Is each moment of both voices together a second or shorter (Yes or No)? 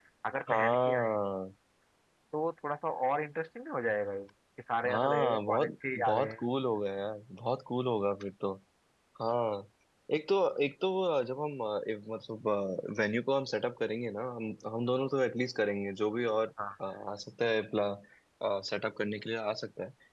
No